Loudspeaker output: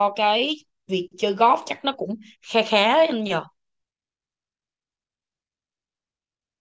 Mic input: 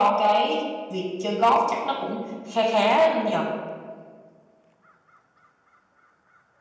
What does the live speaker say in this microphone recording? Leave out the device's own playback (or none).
none